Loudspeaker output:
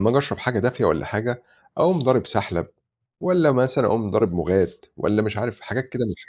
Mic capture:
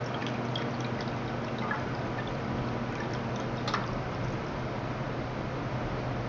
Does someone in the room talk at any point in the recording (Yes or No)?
No